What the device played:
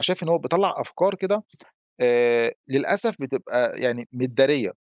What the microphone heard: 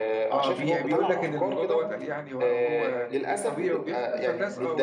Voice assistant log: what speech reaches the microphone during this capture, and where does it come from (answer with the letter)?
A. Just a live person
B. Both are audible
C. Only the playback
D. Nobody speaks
B